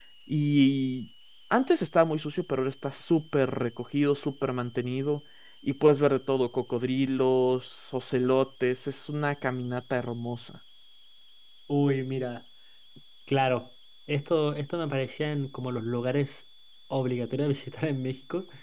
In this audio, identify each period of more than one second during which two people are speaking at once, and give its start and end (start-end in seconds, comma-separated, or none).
none